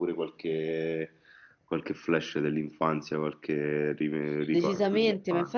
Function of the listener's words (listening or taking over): taking over